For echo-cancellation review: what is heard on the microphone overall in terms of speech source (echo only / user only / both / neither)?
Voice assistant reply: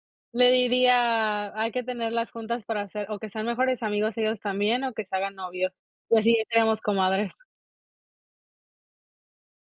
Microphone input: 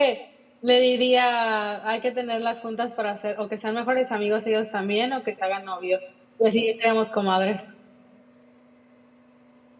echo only